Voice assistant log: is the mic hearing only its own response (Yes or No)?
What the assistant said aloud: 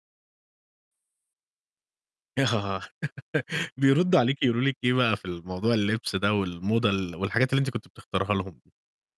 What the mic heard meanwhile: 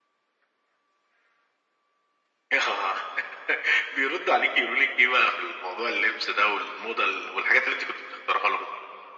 Yes